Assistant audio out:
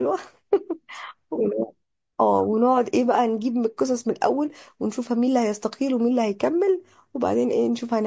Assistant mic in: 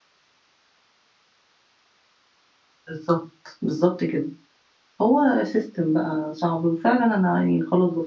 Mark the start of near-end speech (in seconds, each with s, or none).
2.9 s